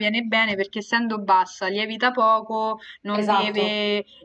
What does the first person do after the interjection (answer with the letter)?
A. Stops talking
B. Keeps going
B